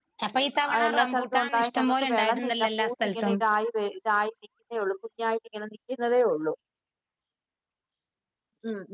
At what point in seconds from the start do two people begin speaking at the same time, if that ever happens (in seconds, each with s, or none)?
0.7 s